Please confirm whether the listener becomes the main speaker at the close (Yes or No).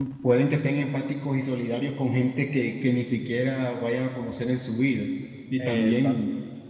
No